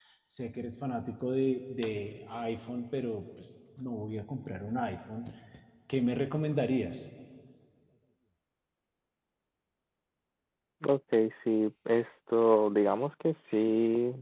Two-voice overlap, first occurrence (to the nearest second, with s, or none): none